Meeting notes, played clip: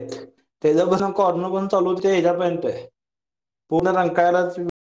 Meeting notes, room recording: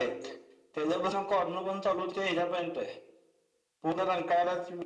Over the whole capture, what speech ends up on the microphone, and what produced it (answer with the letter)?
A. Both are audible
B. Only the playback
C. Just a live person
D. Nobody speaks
B